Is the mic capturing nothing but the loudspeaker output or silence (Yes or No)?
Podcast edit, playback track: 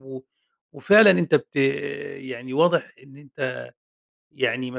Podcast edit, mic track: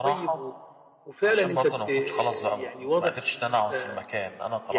No